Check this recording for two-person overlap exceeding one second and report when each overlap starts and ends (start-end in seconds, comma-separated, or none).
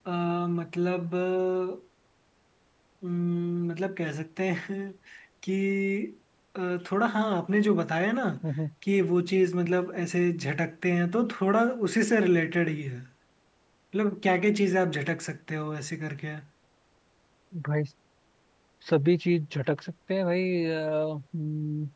none